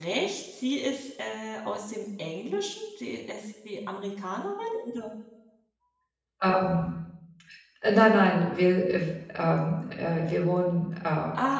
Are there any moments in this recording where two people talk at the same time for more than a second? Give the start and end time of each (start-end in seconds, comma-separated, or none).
none